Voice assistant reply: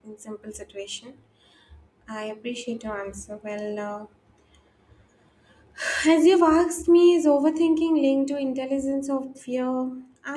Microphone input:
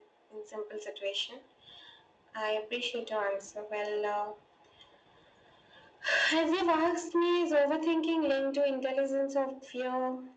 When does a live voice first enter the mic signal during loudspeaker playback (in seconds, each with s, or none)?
none